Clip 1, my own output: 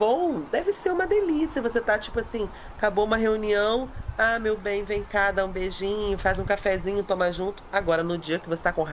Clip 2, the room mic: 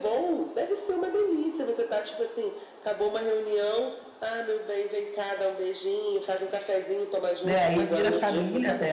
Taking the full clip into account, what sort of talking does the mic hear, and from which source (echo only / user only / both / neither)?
both